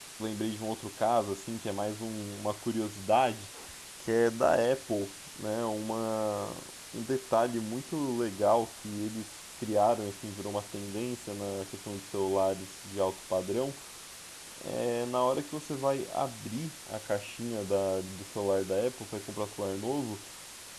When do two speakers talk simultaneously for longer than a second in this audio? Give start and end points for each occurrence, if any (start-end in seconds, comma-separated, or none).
none